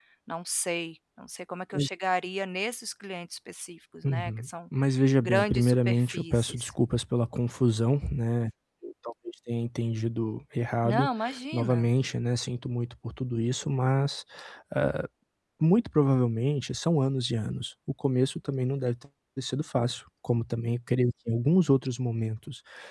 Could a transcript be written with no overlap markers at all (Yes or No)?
No